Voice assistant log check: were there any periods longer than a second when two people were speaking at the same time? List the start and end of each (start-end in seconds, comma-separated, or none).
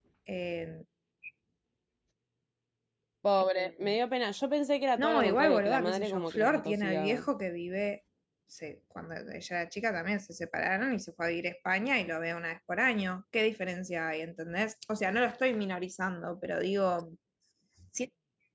5.0-7.2